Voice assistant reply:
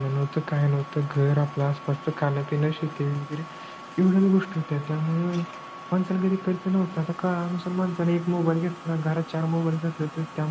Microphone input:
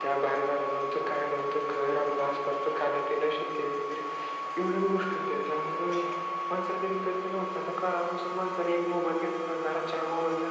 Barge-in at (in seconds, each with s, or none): none